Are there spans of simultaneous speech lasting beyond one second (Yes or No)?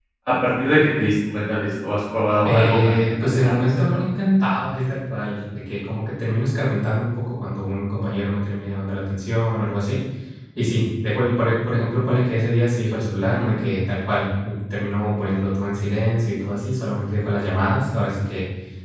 Yes